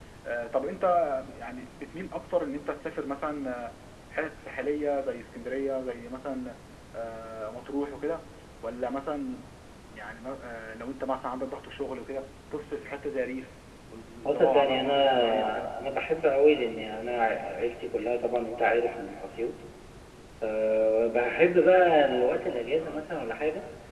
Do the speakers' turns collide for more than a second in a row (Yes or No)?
Yes